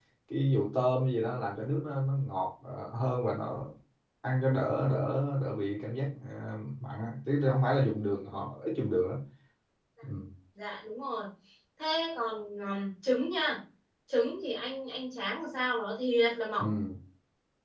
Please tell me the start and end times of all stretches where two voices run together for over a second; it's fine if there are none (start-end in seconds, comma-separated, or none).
none